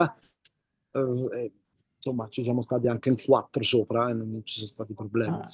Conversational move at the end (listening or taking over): taking over